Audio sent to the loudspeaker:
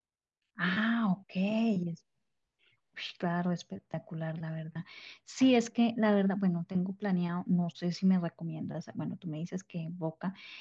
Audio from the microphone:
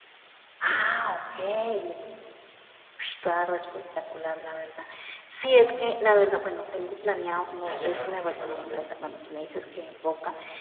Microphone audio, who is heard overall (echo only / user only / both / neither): both